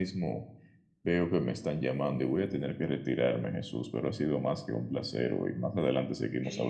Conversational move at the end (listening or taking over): taking over